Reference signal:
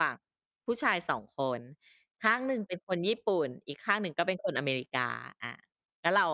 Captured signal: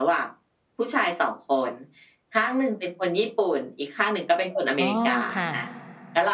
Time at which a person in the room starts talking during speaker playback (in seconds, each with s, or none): 4.8 s